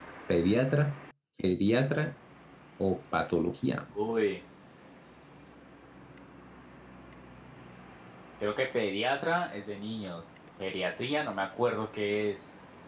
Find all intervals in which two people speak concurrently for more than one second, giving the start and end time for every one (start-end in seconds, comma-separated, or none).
none